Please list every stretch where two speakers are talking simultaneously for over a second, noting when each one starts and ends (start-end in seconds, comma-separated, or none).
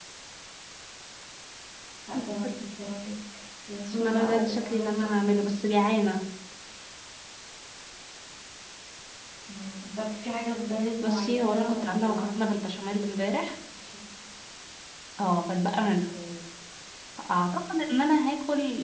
4.0-5.3, 11.0-12.4